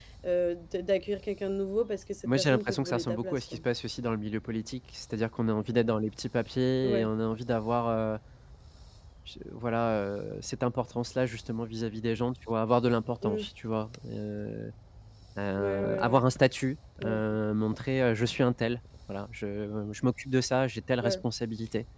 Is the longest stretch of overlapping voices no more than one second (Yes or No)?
No